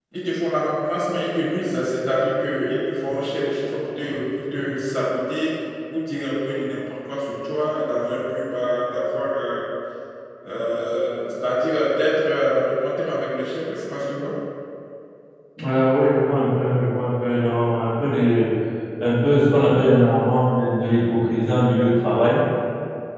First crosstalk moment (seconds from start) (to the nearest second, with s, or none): none